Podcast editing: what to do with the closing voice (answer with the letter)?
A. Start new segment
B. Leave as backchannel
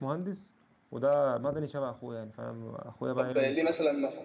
A